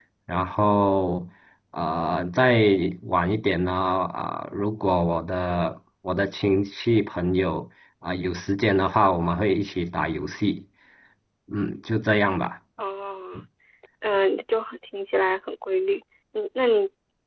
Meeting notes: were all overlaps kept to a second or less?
Yes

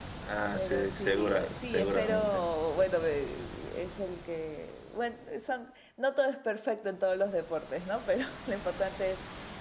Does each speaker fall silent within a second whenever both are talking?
No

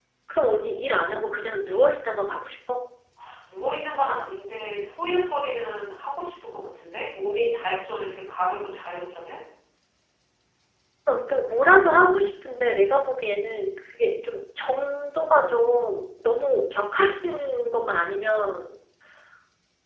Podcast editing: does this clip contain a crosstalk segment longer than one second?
No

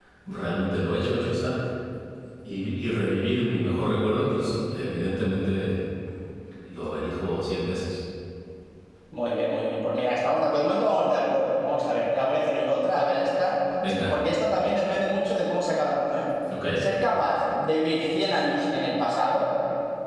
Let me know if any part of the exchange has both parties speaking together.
No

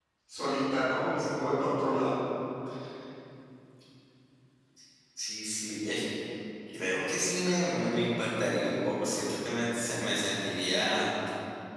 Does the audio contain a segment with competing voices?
No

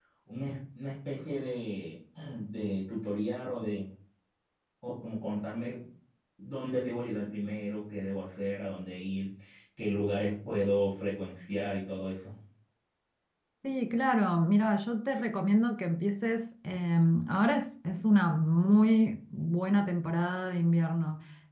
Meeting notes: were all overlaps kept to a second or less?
Yes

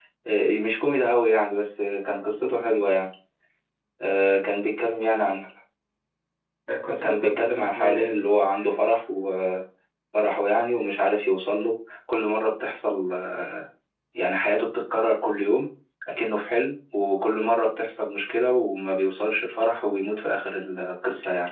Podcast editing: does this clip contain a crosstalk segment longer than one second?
Yes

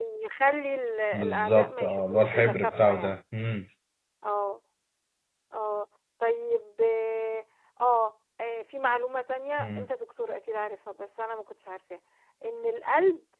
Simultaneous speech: Yes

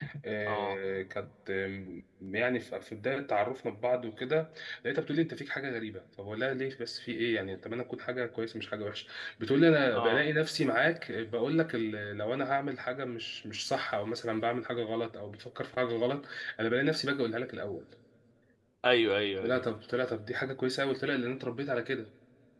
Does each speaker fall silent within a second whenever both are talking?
Yes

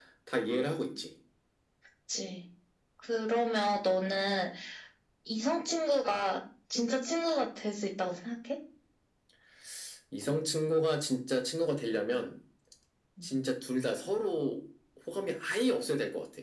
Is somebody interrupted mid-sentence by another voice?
No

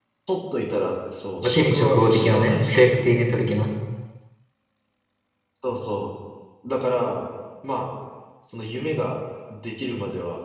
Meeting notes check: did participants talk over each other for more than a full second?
Yes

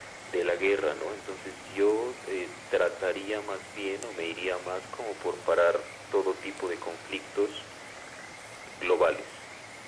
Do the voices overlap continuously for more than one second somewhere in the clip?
No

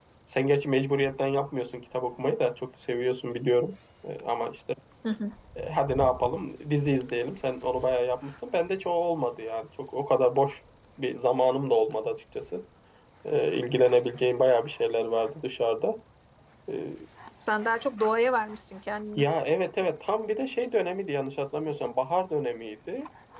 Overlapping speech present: No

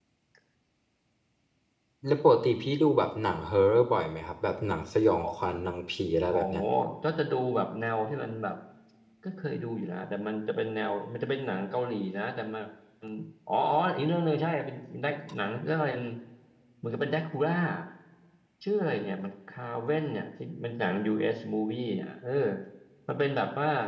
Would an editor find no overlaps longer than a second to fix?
Yes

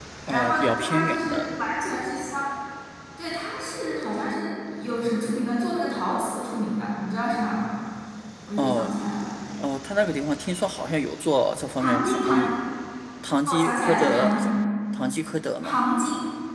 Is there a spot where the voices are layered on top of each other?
Yes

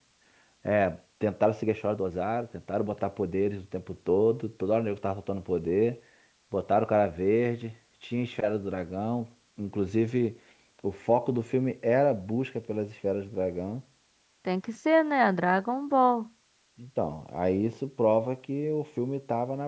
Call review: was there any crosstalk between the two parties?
No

